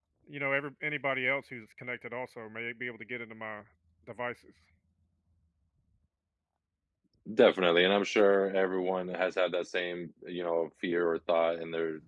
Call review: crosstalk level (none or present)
none